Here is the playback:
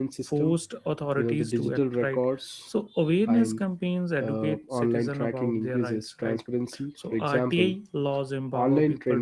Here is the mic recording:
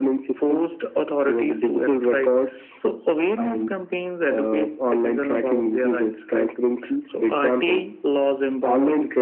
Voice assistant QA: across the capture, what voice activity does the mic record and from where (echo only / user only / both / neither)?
echo only